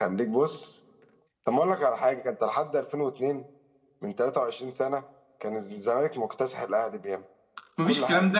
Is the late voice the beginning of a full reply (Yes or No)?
Yes